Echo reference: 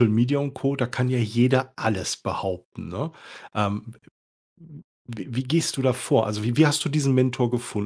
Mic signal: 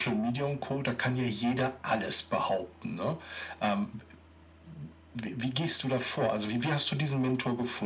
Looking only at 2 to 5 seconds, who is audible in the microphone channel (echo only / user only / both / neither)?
echo only